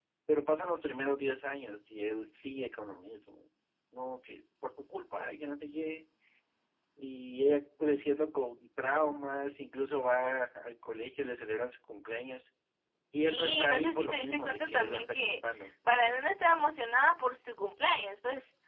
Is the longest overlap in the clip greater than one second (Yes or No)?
Yes